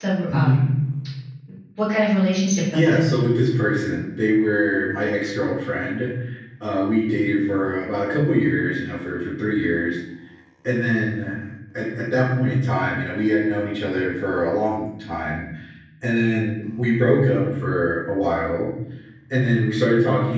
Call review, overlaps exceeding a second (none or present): none